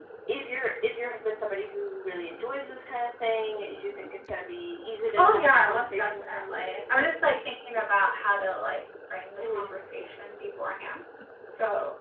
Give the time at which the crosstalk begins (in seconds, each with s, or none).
5.2 s